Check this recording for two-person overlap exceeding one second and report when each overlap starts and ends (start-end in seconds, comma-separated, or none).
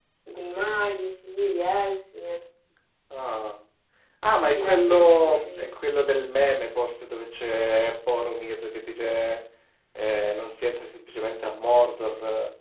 4.5-6.1